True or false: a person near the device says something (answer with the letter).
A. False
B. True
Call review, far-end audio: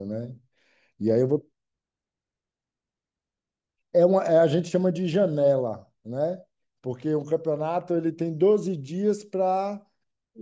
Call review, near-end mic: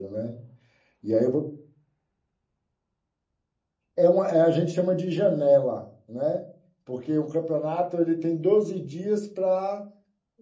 A